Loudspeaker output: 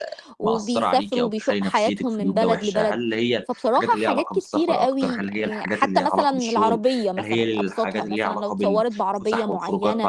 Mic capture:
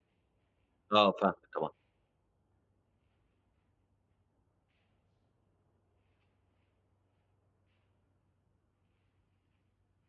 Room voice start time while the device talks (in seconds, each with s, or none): 0.9 s